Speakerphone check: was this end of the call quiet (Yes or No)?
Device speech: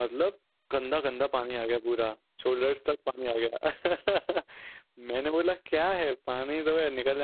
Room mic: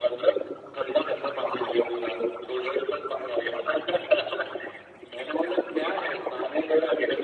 Yes